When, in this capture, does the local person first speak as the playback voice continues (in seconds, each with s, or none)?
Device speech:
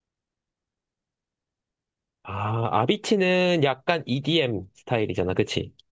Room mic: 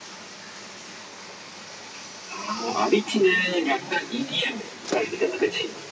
none